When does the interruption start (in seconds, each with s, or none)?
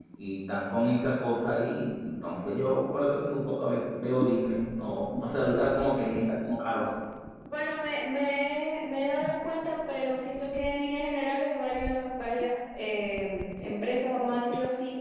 none